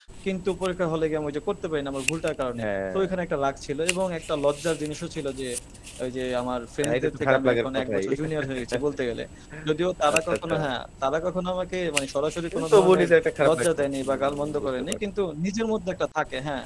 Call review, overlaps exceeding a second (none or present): present